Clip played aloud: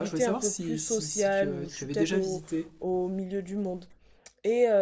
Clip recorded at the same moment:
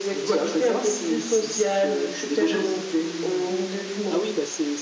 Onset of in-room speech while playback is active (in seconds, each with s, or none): 3.0 s